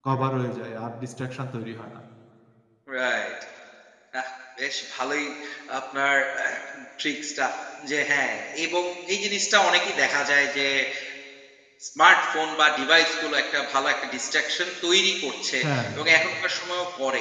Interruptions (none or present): none